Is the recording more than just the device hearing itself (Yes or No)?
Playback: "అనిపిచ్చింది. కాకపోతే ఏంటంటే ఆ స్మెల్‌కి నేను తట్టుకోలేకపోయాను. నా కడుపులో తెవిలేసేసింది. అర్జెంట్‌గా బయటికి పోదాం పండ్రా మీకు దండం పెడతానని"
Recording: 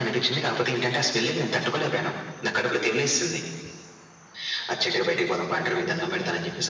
No